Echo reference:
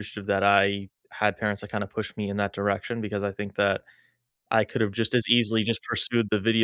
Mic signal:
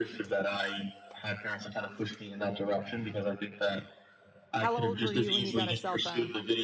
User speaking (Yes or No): Yes